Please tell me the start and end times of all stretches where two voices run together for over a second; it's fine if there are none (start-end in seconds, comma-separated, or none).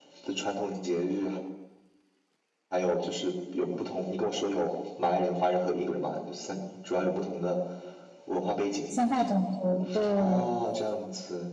none